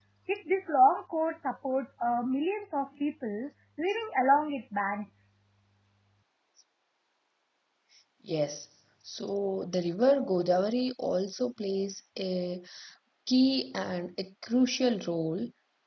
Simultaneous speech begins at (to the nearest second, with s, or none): none